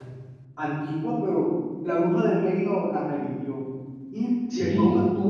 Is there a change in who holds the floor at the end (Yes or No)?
No